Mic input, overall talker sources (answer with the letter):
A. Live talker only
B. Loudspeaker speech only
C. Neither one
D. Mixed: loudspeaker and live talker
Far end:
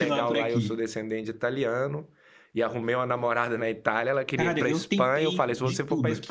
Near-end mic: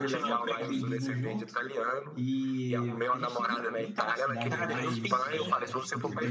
D